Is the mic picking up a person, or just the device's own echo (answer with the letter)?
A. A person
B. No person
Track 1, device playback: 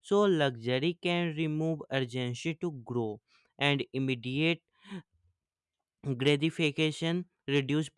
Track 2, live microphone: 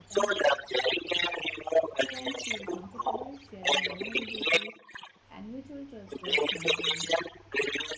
A